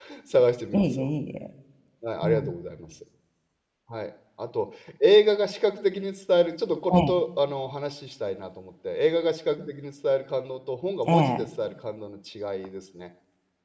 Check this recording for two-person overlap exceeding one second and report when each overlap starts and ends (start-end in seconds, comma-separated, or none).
none